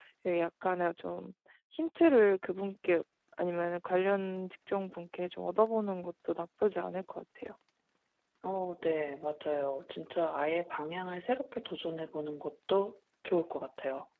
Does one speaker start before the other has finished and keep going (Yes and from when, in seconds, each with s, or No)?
No